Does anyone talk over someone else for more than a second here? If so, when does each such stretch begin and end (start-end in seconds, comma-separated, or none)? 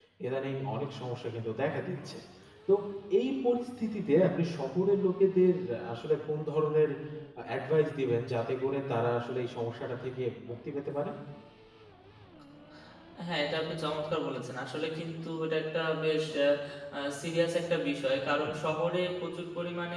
none